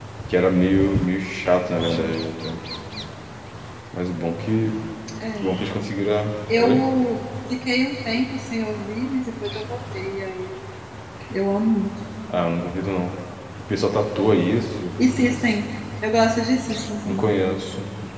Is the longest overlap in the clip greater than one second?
No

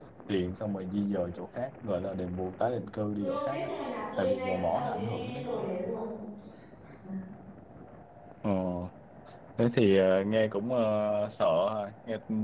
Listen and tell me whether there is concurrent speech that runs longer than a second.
Yes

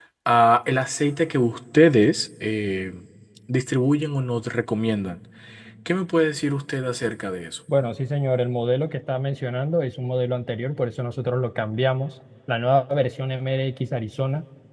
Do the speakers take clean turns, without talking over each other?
Yes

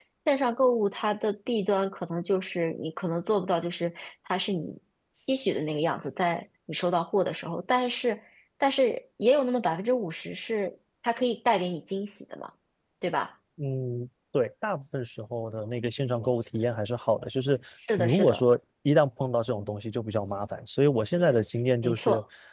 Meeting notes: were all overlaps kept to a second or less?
Yes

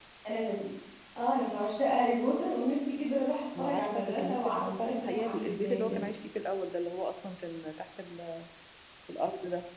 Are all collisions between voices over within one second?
No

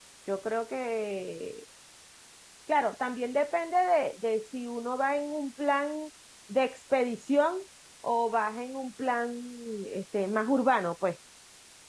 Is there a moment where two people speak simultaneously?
No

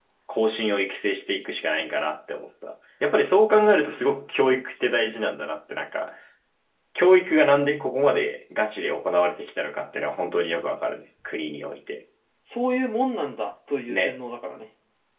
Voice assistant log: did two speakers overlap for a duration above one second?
Yes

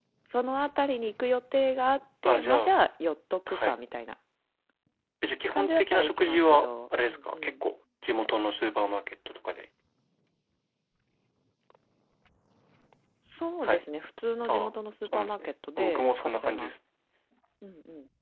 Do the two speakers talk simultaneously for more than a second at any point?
Yes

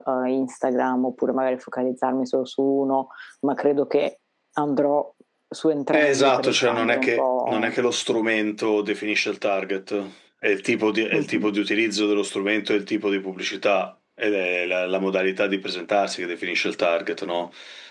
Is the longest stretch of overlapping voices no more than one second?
No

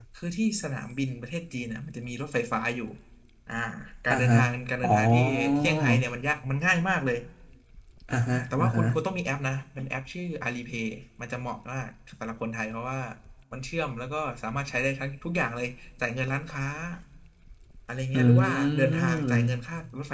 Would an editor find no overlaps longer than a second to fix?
No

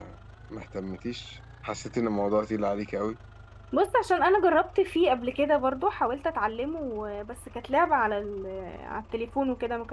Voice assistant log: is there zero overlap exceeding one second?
Yes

